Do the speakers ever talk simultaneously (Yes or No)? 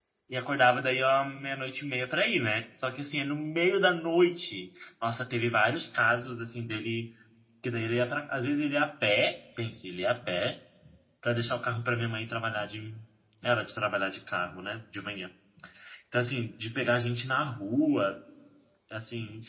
No